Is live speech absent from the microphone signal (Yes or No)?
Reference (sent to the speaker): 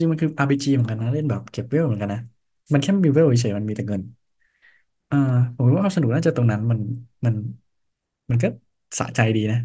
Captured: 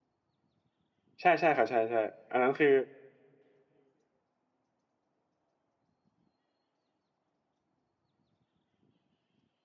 No